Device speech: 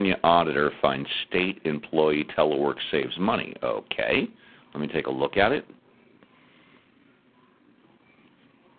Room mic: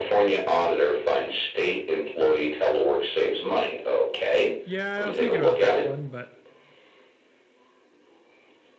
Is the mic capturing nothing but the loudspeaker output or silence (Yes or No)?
No